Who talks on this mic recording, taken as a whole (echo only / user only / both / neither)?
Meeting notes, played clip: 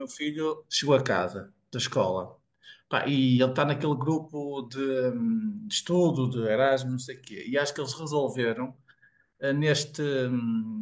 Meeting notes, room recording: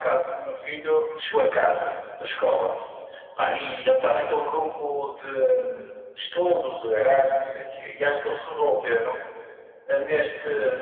echo only